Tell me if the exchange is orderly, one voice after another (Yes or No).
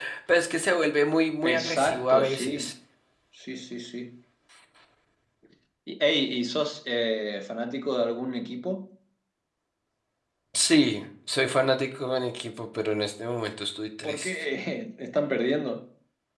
No